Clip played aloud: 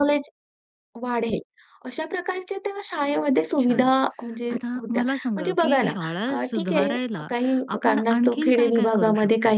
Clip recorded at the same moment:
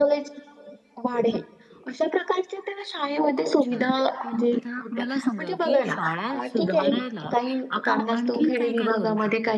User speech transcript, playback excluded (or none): none